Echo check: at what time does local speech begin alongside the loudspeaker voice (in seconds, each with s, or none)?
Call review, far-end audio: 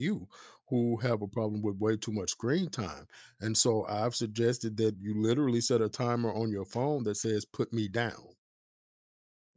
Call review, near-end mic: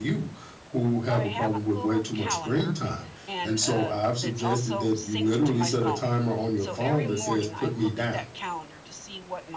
1.1 s